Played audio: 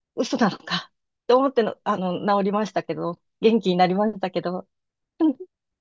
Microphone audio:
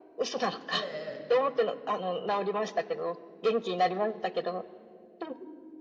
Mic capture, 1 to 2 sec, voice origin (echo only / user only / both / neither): both